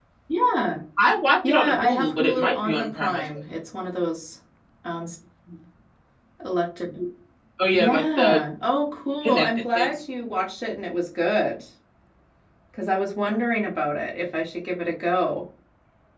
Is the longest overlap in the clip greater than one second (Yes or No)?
Yes